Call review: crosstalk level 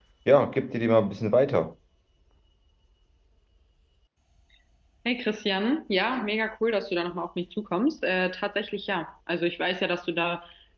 none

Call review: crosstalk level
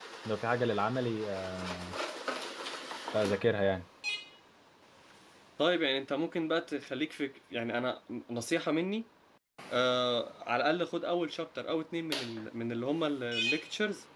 none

